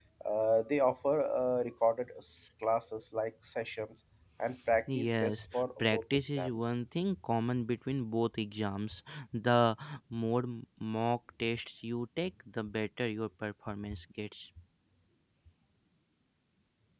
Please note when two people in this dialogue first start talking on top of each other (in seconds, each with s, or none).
4.7 s